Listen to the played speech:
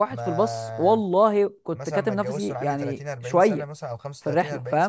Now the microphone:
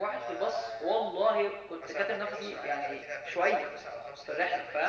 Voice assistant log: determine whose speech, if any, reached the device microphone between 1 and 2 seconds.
echo only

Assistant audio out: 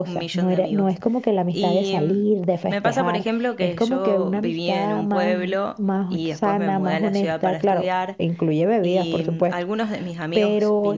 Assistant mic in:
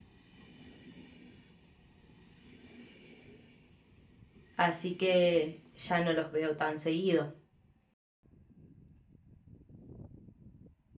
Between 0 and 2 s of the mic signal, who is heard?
neither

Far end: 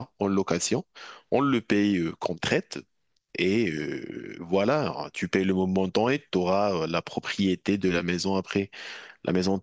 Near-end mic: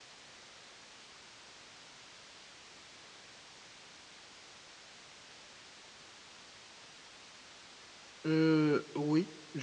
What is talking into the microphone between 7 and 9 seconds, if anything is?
user only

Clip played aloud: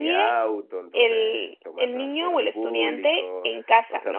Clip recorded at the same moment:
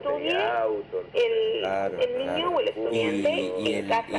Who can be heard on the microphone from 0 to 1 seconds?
echo only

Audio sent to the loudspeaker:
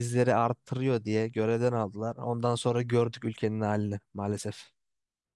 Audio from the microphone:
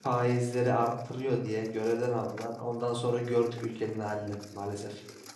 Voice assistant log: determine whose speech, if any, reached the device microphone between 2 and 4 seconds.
echo only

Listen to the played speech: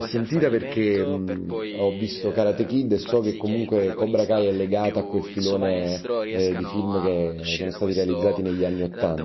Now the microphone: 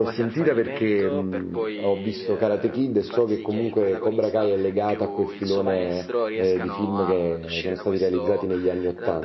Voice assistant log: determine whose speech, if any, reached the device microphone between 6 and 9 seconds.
echo only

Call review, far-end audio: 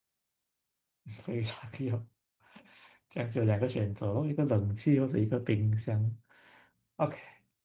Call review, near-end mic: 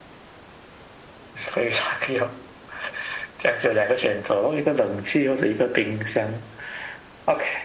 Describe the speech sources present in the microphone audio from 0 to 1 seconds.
neither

